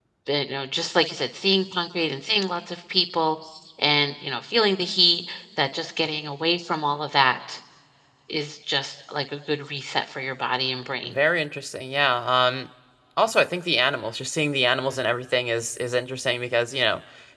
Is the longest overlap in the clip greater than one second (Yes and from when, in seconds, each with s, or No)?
No